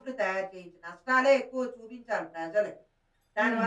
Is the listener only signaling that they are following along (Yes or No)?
Yes